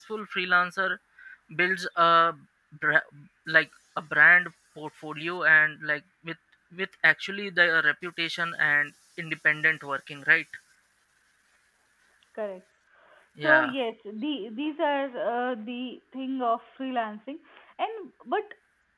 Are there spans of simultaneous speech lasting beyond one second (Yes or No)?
No